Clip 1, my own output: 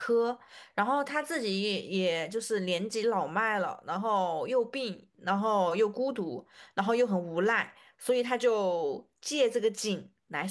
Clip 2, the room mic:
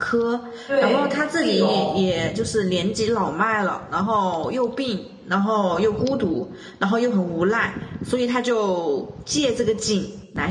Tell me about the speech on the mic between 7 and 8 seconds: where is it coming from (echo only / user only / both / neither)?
echo only